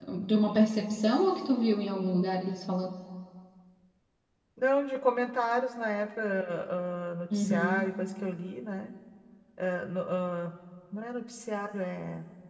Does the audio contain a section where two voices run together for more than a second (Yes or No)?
No